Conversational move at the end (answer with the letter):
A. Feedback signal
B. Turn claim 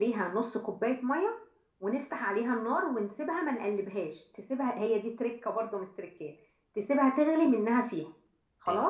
B